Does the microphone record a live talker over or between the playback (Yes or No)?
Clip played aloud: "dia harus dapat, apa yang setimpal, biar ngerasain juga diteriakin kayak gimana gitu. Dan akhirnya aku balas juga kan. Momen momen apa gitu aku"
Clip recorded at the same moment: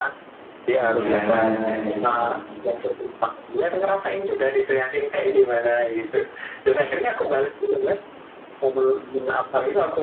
Yes